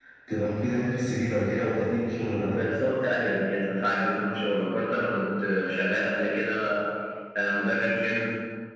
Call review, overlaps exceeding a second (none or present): none